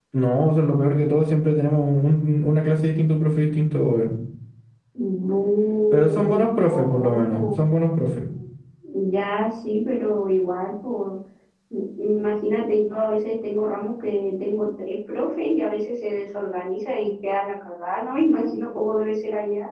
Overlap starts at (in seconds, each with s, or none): 5.9 s